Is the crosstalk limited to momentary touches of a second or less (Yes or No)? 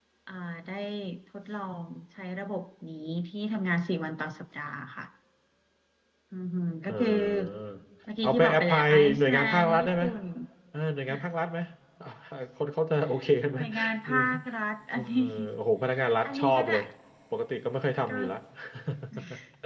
No